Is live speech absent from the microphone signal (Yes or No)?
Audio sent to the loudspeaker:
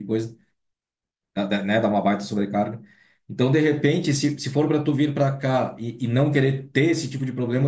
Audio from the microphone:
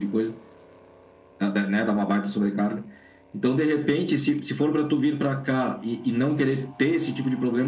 Yes